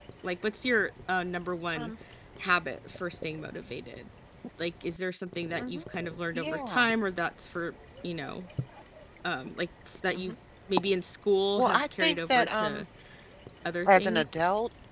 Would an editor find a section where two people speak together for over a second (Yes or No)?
Yes